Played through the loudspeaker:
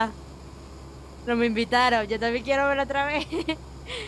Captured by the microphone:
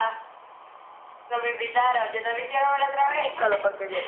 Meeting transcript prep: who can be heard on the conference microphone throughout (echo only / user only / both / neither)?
both